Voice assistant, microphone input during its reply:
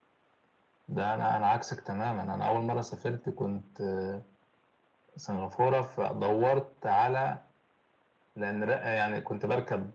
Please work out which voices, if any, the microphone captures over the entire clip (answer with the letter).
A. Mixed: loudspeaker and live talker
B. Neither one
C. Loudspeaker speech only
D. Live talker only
C